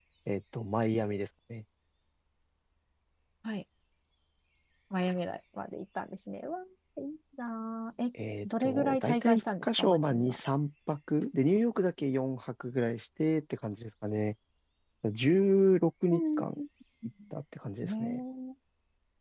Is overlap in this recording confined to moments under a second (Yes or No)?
No